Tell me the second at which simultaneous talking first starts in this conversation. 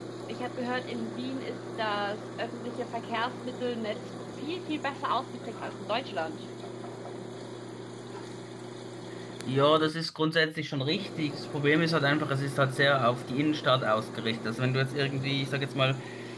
none

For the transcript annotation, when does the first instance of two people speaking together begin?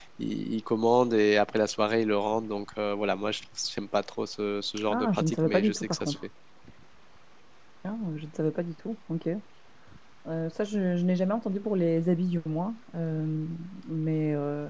4.8 s

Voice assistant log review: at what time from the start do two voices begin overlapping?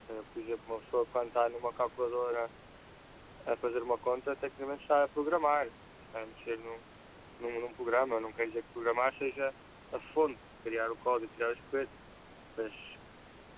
none

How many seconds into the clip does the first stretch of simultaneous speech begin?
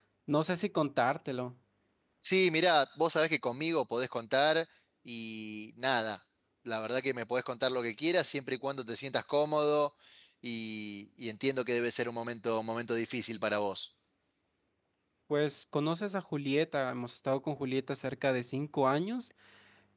none

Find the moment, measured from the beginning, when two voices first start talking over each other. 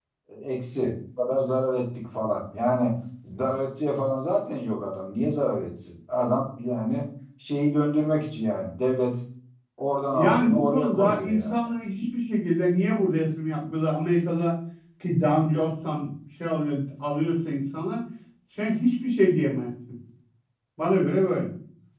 10.1 s

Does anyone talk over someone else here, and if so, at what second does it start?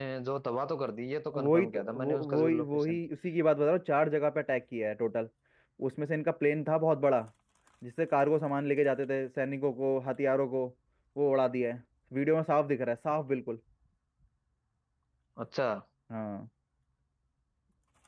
1.3 s

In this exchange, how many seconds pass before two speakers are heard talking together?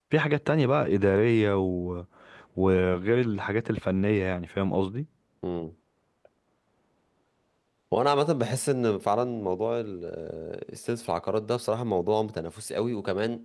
none

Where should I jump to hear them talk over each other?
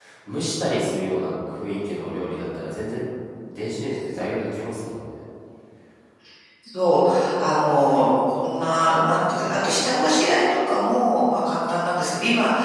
none

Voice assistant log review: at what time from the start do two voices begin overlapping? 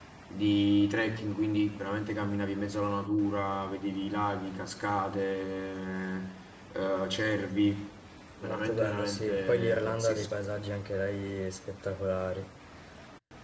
8.4 s

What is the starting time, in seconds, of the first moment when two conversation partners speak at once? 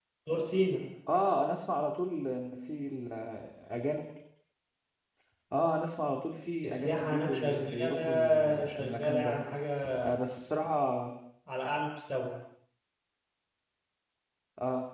6.6 s

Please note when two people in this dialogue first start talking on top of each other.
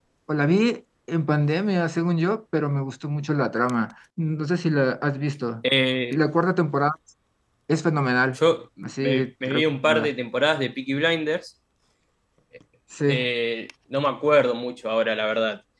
8.8 s

